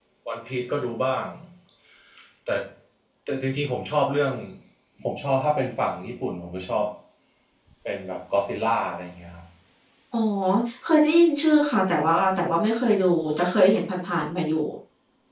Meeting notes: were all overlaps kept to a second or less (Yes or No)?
Yes